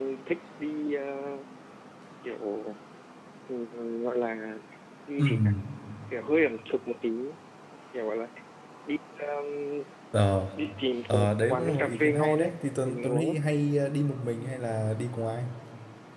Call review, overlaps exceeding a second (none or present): present